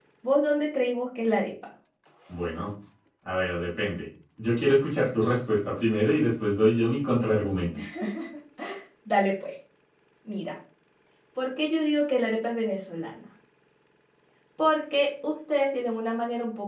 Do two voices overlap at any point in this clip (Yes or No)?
No